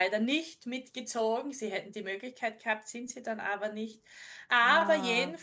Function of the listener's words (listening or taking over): listening